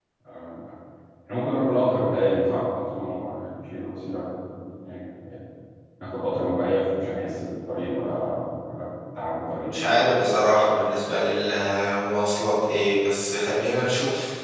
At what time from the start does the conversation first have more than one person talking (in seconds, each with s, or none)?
none